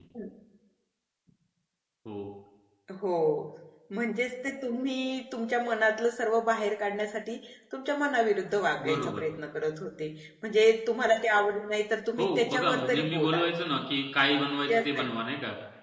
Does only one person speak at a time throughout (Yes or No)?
No